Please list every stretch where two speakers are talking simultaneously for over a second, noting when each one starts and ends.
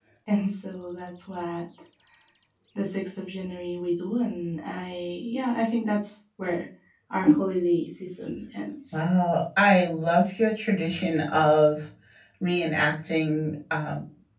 none

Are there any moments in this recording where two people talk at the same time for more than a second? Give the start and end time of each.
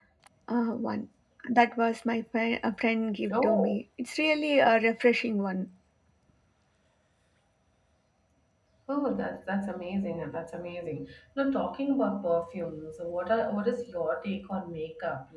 none

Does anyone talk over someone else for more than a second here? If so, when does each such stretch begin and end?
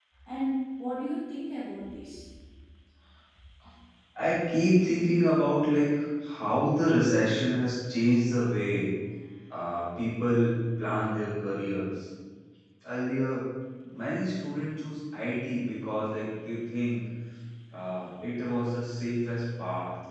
none

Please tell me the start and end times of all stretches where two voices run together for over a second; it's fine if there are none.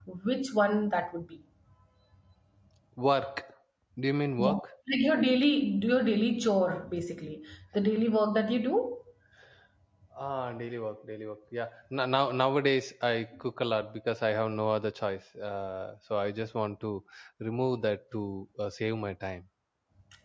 none

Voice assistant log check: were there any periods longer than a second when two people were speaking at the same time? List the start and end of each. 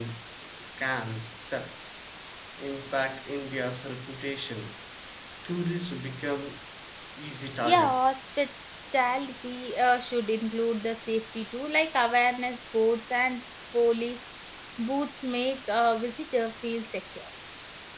none

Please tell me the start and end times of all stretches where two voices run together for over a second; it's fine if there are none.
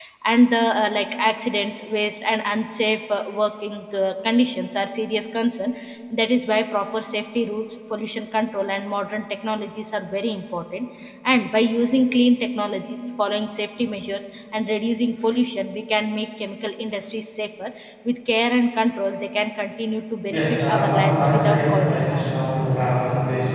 20.3-22.2

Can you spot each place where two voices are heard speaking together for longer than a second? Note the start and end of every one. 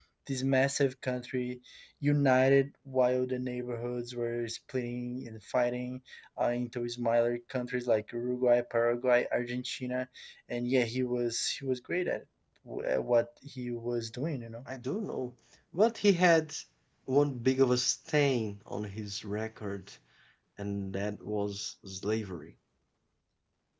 none

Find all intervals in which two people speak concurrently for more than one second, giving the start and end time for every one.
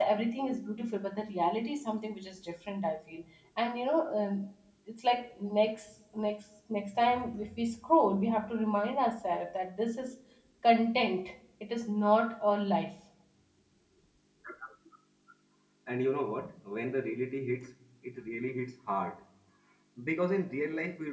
none

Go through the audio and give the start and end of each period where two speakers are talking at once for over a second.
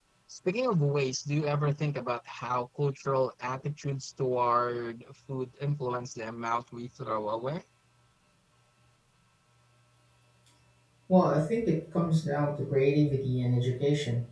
none

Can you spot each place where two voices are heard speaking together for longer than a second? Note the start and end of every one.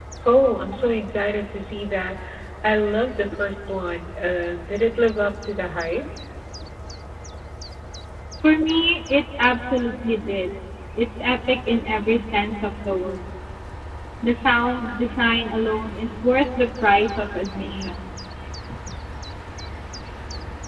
none

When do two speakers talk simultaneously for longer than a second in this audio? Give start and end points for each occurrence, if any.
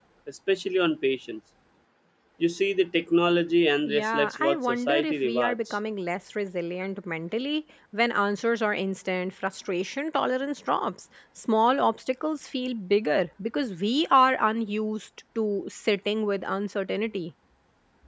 3.9-5.8

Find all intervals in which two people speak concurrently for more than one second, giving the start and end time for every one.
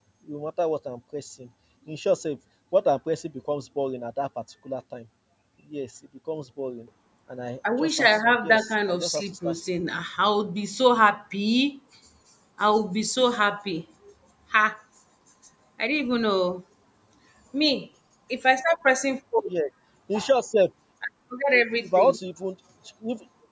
7.8-9.6

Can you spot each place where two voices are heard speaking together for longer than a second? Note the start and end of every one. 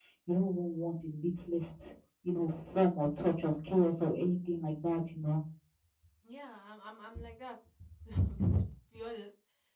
none

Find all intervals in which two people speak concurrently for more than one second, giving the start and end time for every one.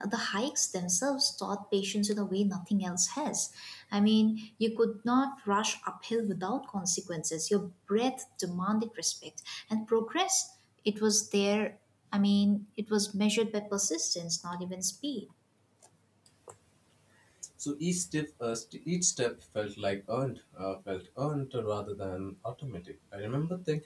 none

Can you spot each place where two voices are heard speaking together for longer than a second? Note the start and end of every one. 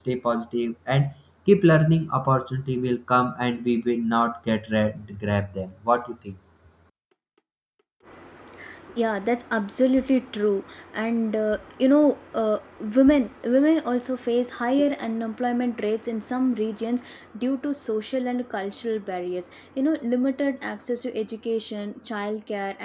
none

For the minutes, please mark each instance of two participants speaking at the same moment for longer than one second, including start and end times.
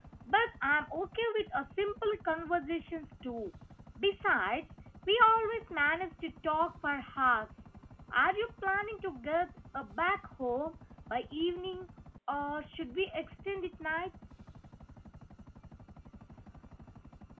none

